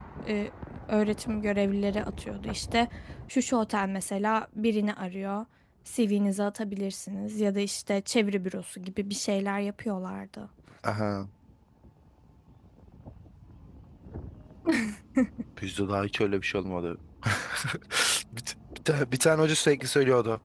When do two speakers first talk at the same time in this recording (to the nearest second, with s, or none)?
none